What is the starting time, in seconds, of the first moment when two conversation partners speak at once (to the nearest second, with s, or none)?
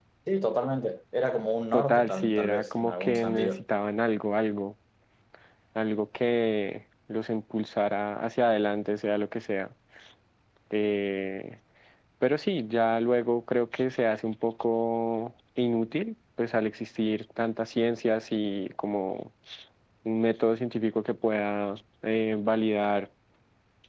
2 s